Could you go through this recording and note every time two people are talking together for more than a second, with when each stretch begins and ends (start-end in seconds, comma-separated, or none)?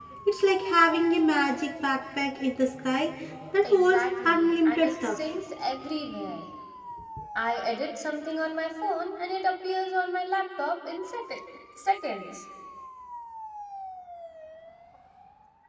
3.6-5.2